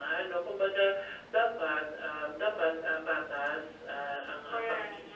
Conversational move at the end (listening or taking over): listening